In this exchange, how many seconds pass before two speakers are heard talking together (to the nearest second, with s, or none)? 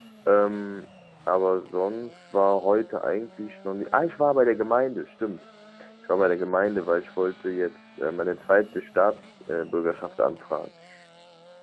none